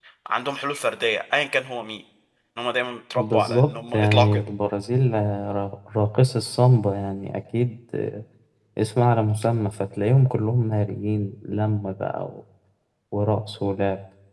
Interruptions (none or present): present